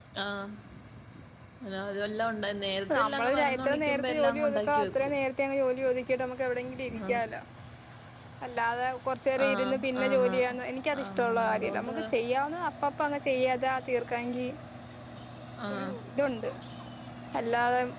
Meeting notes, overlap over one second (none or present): present